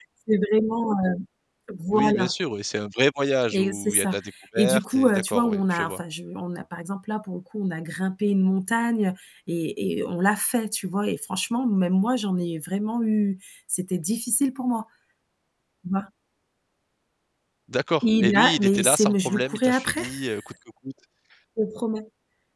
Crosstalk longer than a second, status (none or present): present